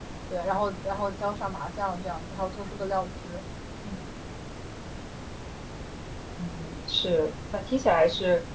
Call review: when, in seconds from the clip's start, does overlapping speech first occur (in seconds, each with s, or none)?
none